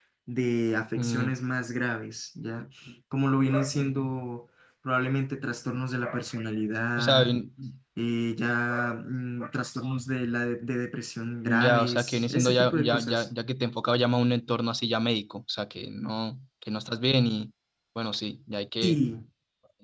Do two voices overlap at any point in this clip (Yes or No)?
Yes